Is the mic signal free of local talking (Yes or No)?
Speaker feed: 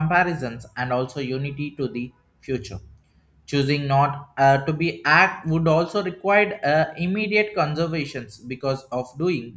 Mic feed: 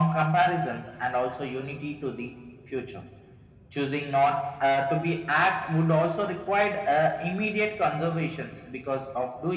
Yes